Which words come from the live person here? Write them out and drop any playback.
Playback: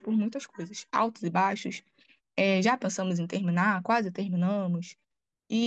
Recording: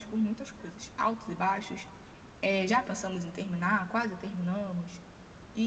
none

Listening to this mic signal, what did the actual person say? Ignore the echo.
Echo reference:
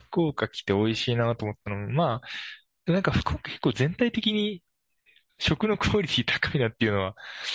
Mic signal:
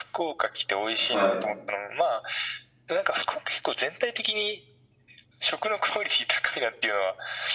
はい。

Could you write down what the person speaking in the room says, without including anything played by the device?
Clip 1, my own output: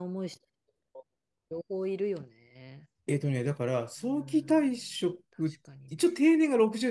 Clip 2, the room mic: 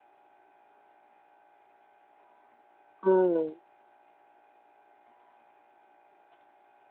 うん、

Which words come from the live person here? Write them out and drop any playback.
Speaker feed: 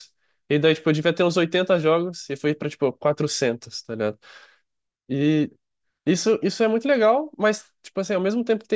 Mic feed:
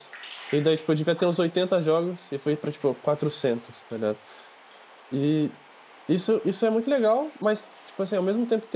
none

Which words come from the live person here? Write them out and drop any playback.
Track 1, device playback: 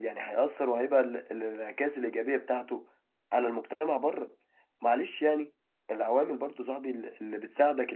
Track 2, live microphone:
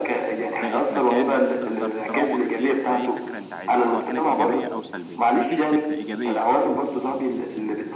بقت مكان تقدر تروج فيه لأي فكرة انت عايزها سواء كانت إيجابية أو سلبية فما فيش فكرة إيجابية

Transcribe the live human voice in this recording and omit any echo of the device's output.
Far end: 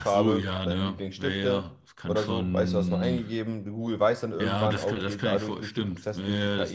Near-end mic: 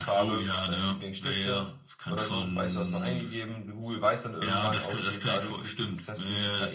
none

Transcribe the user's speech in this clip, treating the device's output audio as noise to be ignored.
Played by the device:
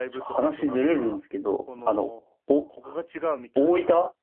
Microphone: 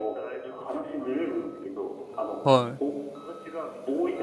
はい。

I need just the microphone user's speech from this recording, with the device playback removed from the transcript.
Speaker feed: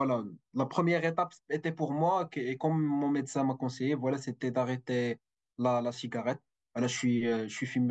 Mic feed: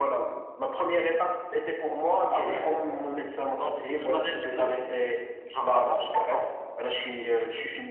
Ah ouais, t'envisages le mariage tôt. Genre avant 30 ans.

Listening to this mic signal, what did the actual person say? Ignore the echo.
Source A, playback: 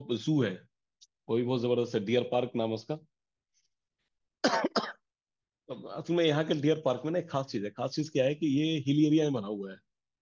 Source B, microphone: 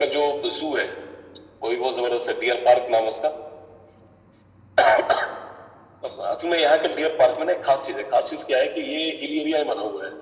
none

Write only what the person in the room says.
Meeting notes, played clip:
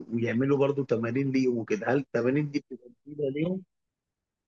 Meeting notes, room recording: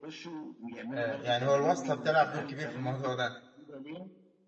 آه يعني هو الواسطة بتلعب دور كبير في الموضوع ده

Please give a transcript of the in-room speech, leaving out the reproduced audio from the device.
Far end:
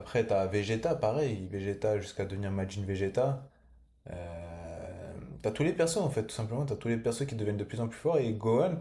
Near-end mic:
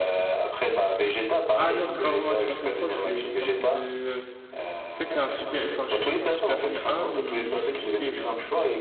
Ah non, c'est pas vraiment un Super Saiyan trois, c'est une sorte de... En fait, c'est un Super... Enfin, je sais pas, c'est un Super Saiyan un mais boosté, genre.

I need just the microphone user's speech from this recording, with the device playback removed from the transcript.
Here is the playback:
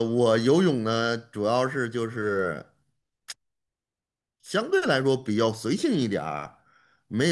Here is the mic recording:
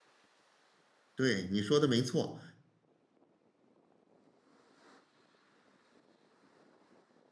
对，你说的没错，

